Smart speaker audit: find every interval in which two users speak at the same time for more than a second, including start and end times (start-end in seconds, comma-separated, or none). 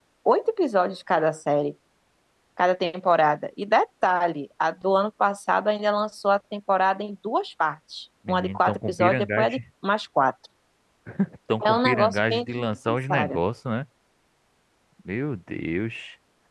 8.3-9.6, 11.6-13.4